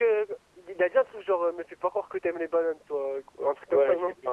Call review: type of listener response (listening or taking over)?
taking over